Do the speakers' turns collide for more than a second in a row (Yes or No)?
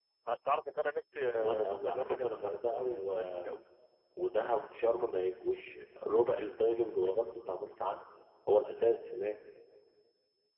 Yes